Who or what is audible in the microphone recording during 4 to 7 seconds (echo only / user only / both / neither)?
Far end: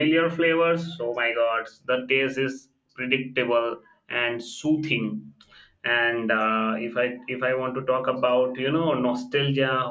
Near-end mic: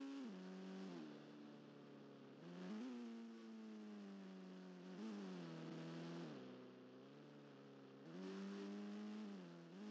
neither